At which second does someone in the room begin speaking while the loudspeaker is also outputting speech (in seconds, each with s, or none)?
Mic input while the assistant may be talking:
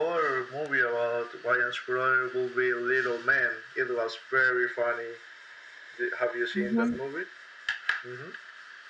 6.5 s